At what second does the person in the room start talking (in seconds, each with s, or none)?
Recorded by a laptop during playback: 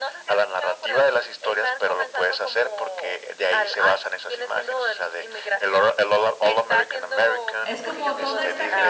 7.6 s